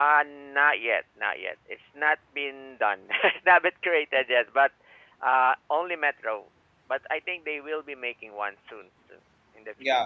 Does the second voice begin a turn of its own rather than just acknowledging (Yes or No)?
Yes